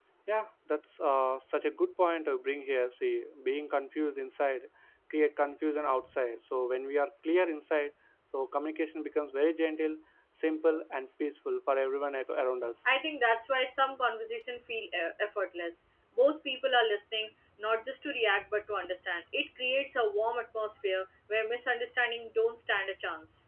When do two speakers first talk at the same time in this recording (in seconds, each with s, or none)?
none